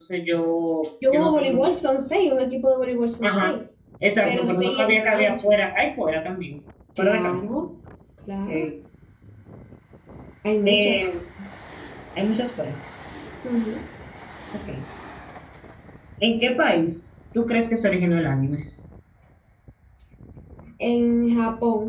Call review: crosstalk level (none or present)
present